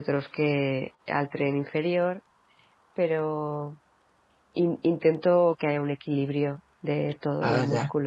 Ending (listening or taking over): taking over